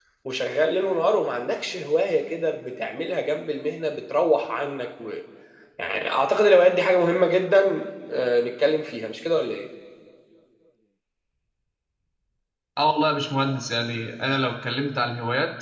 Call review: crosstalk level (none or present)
none